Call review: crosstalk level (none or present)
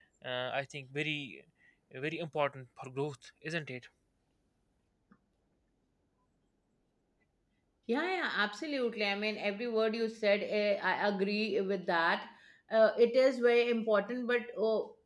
none